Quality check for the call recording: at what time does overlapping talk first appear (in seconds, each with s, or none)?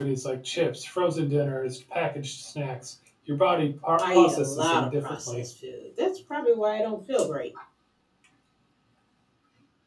4.0 s